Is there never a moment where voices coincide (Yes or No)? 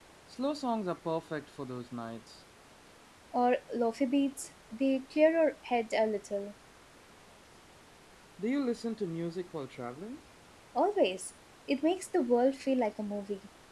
Yes